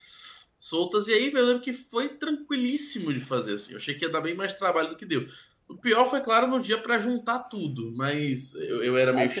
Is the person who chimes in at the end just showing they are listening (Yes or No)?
No